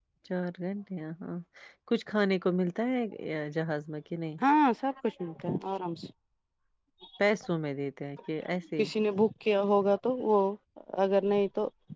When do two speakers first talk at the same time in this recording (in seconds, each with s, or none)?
none